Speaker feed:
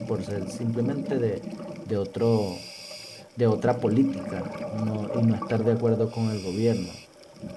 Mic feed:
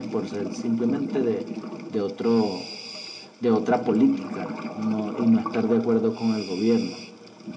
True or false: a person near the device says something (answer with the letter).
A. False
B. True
A